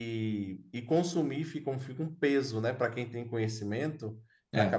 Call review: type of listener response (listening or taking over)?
listening